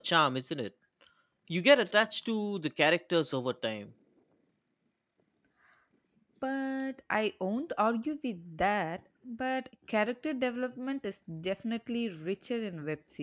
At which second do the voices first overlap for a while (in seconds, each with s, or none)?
none